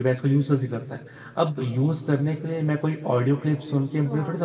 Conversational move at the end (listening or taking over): listening